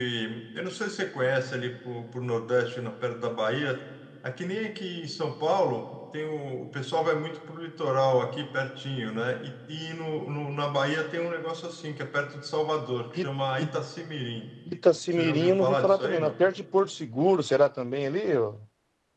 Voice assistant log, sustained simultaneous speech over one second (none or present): present